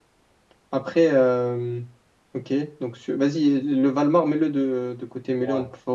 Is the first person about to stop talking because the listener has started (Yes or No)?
No